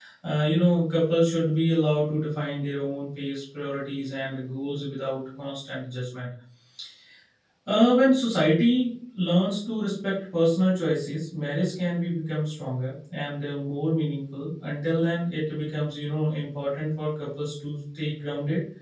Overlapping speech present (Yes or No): No